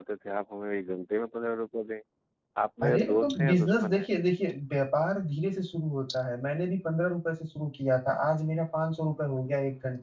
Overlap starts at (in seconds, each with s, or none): 2.8 s